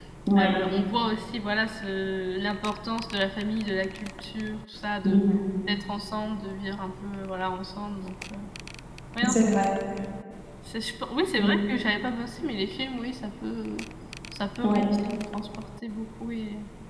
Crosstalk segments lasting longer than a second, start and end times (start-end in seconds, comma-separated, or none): none